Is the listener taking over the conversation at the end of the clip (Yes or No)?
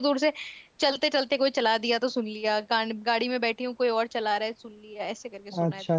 Yes